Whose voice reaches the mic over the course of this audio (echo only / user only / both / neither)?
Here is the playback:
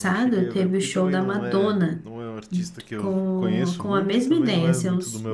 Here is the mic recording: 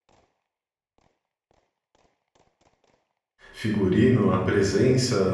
user only